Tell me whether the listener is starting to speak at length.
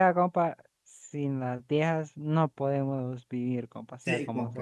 Yes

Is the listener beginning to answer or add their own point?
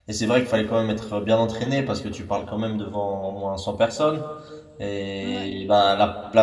No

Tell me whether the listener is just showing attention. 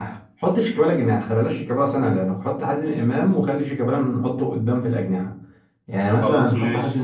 Yes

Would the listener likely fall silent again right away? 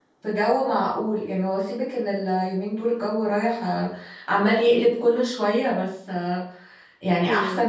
Yes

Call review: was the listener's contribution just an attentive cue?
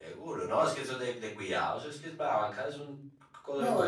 No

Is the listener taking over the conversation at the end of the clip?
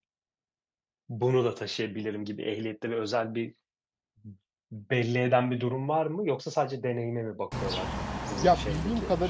Yes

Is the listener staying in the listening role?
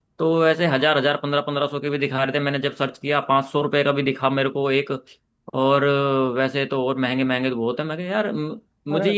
Yes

